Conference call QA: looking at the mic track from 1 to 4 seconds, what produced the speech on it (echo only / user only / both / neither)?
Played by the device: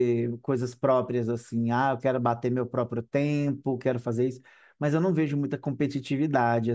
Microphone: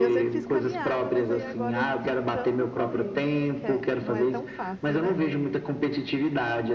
both